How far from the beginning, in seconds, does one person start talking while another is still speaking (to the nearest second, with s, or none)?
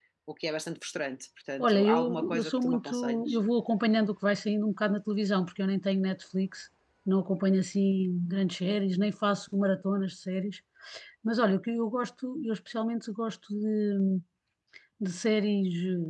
2 s